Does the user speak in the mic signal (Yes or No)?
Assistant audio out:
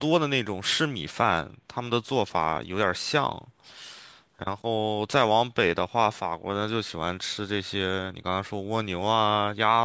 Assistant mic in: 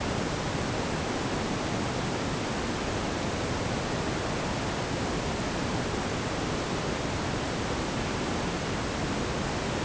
No